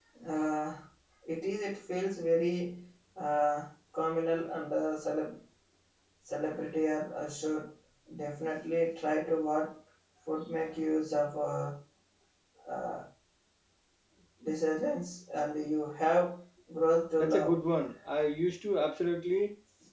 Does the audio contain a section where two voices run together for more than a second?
No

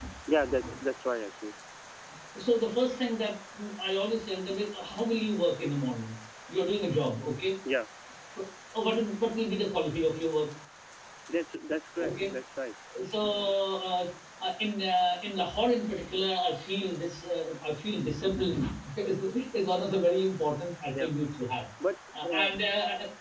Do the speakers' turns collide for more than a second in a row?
No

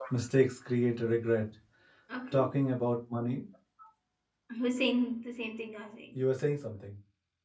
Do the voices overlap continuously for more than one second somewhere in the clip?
No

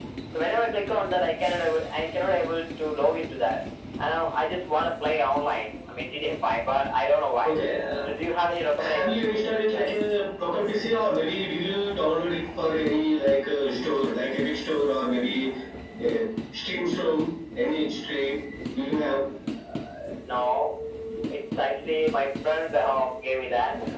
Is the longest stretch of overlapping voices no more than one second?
Yes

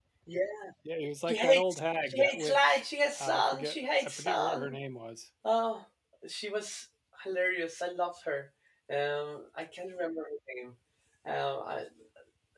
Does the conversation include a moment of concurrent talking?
Yes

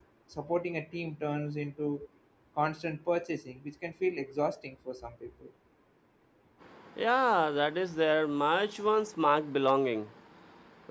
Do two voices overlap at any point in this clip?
No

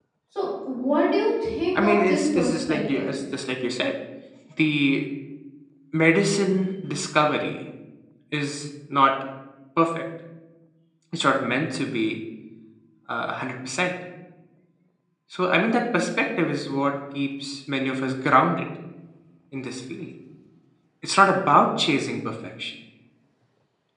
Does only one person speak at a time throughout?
No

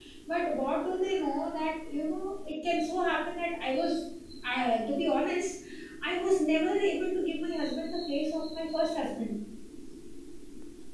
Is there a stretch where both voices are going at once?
No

